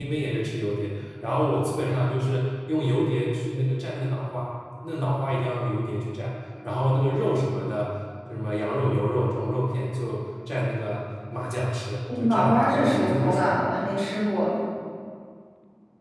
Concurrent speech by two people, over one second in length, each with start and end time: 12.2-13.5

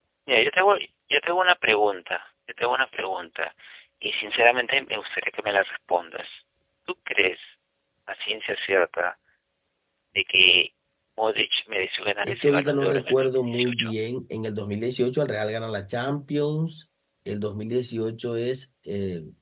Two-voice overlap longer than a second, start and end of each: 12.2-13.9

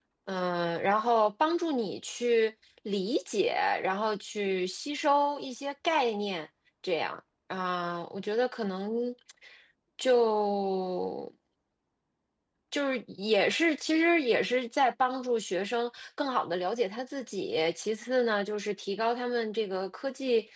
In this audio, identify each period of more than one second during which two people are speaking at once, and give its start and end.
none

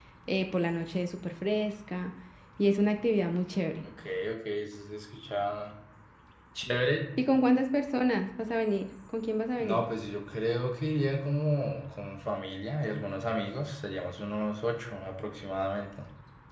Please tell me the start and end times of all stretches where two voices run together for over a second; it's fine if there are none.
none

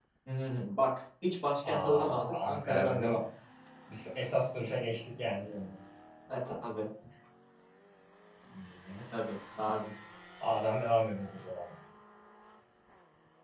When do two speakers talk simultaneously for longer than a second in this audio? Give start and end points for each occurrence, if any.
1.7-3.2

